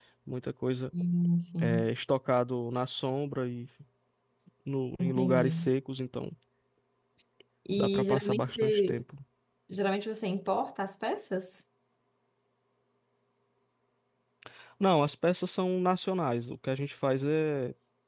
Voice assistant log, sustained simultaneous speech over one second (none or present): present